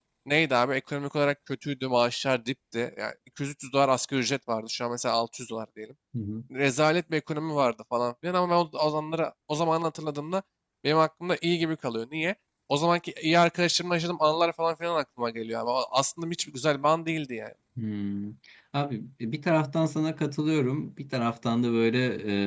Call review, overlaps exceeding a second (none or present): none